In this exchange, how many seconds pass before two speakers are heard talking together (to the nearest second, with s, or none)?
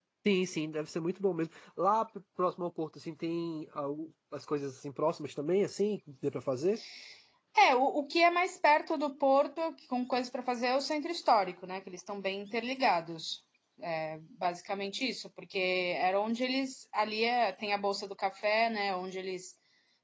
none